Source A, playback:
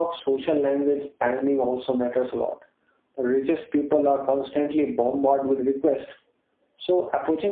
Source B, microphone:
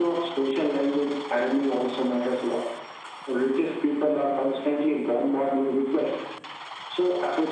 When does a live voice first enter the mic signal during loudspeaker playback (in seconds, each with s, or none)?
none